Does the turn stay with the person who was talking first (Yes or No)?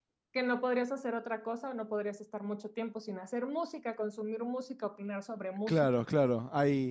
No